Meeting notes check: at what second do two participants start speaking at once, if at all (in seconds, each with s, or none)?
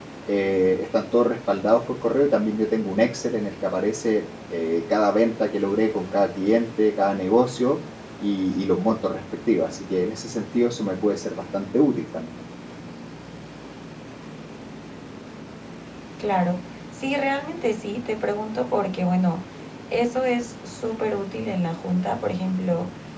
none